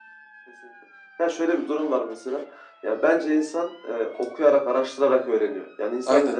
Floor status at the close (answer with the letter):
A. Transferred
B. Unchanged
B